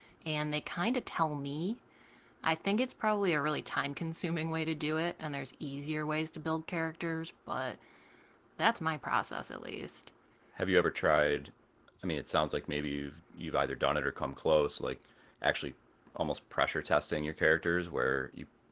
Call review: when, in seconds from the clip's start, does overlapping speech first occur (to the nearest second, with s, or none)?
none